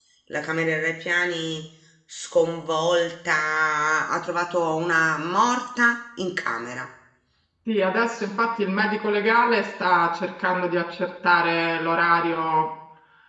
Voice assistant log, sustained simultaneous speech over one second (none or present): none